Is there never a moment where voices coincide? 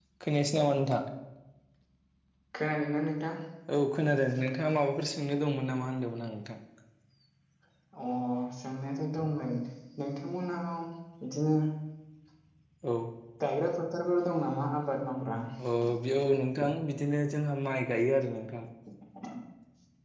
Yes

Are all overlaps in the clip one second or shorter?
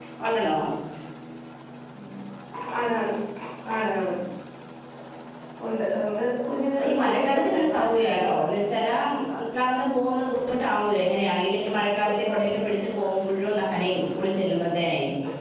No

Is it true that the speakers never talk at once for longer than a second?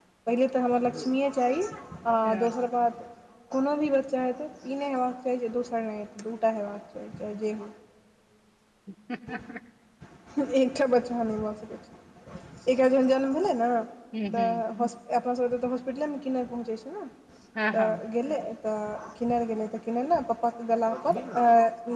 Yes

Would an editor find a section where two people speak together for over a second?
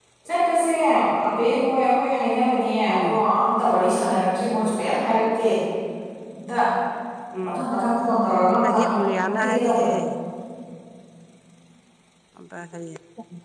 Yes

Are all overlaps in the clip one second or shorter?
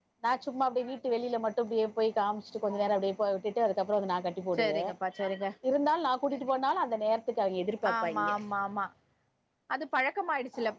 Yes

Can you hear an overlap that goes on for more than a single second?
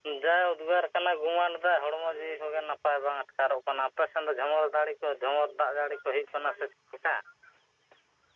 No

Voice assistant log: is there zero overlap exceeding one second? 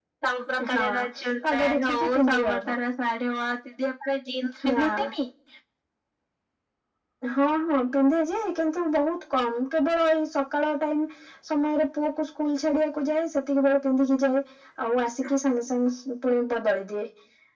No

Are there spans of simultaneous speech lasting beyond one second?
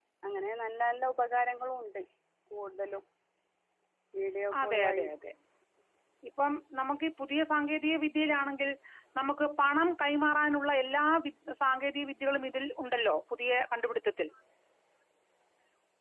No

